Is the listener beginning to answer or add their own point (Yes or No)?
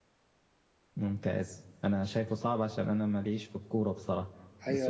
Yes